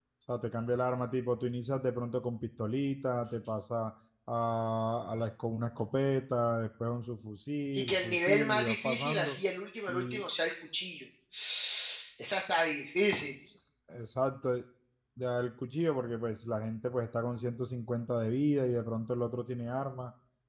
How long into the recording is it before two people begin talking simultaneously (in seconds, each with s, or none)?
7.7 s